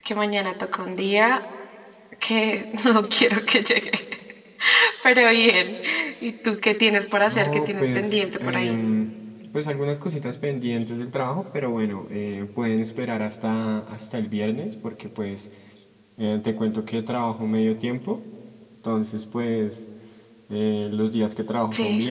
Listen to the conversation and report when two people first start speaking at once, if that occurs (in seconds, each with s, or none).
7.3 s